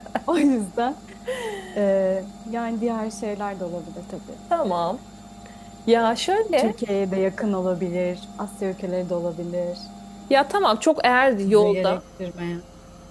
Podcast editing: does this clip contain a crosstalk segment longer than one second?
No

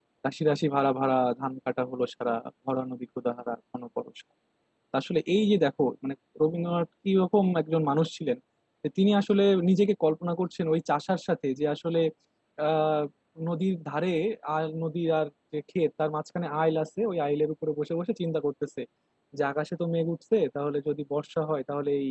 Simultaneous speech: No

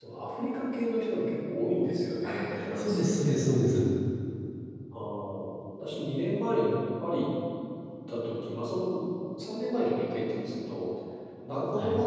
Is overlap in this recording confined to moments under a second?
No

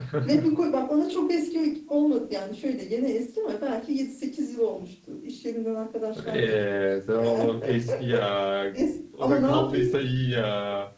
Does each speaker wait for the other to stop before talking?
No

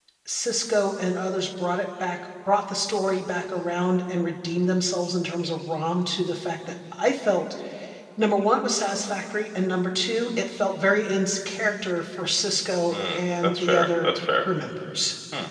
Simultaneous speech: Yes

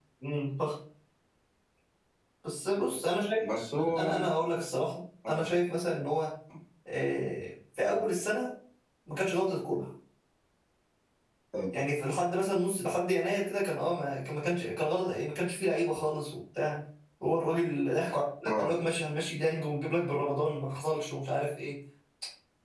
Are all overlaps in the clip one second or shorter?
Yes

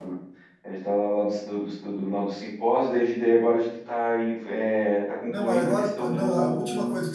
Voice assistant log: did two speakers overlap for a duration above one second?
Yes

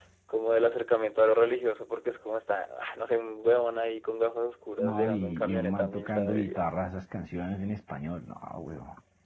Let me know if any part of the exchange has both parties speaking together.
Yes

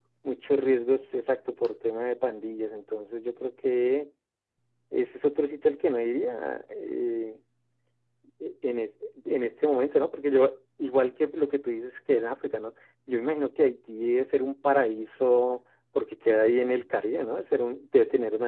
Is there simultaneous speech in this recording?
No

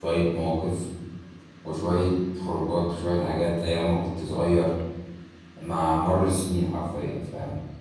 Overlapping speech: No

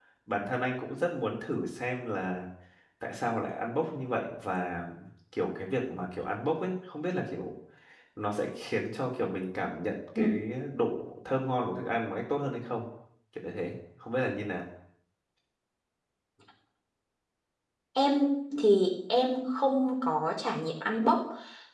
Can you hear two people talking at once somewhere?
No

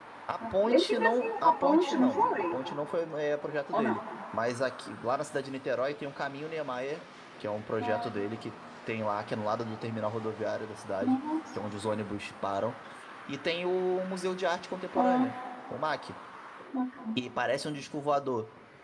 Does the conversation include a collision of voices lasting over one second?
Yes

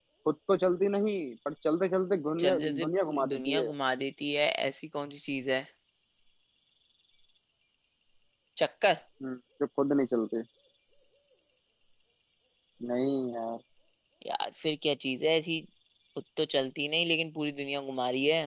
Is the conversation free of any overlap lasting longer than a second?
No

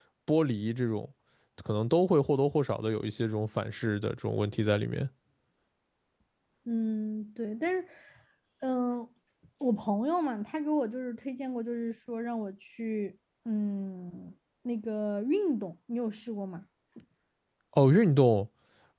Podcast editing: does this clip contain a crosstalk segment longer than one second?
No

